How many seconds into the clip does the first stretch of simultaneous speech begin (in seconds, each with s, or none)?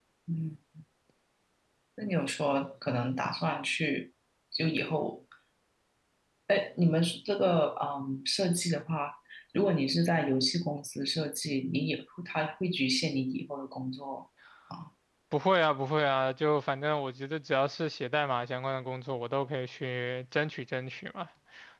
none